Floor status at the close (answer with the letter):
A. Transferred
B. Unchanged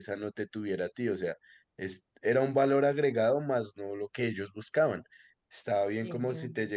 B